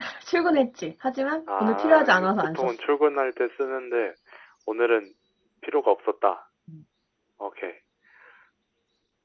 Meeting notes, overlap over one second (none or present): present